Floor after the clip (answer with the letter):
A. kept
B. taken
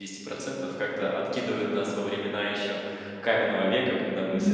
A